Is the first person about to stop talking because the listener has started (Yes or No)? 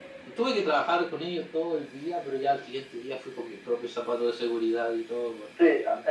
Yes